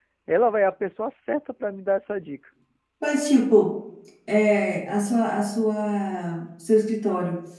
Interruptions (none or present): none